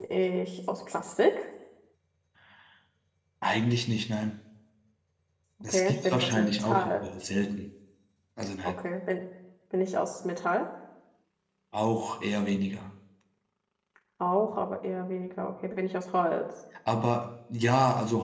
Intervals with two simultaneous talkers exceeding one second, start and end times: 5.6-7.1

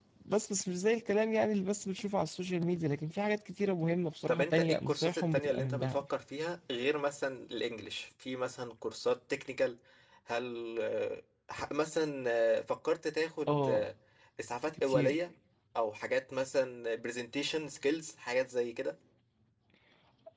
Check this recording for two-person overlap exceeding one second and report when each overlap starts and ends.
4.3-6.0

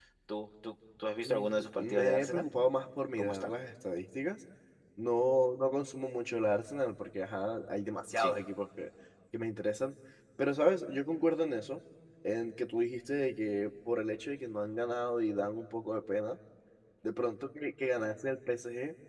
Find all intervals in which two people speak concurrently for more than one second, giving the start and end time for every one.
1.2-2.4

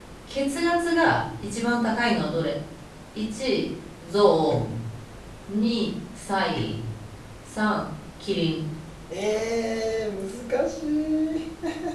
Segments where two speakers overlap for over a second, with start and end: none

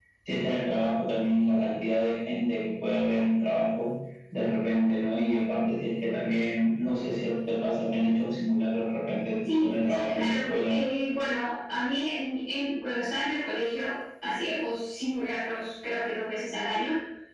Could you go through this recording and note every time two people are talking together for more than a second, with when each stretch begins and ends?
9.4-10.7

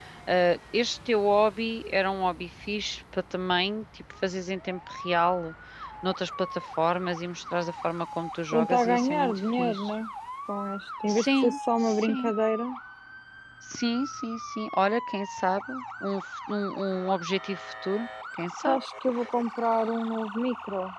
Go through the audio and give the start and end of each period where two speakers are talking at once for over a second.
8.5-9.9, 11.1-12.3

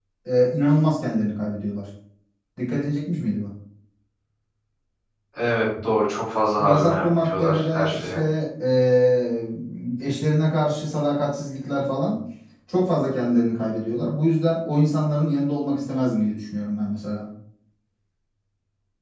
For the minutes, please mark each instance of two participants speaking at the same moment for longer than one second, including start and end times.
6.6-8.2

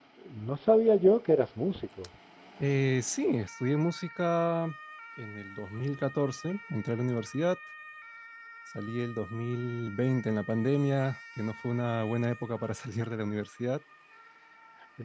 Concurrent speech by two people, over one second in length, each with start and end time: none

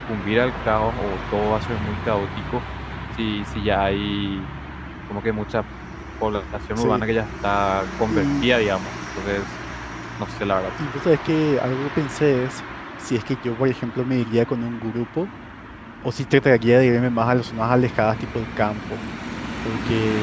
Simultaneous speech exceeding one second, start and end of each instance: none

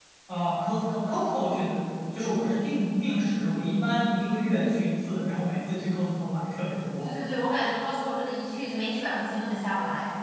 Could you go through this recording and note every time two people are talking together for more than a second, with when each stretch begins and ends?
none

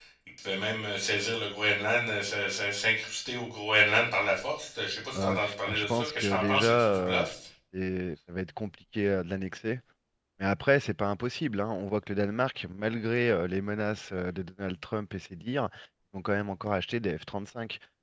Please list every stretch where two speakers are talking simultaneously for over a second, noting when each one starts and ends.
5.2-7.2

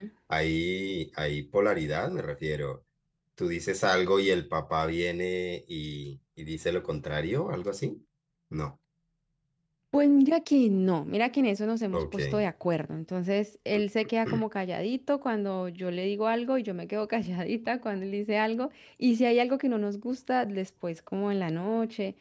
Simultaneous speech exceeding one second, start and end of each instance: none

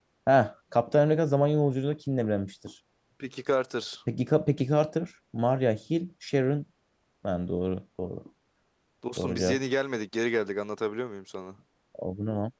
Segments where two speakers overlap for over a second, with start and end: none

